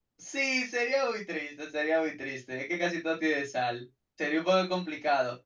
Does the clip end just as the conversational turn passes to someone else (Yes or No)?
No